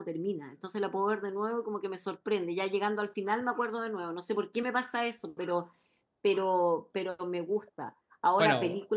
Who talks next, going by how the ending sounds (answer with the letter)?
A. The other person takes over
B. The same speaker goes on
B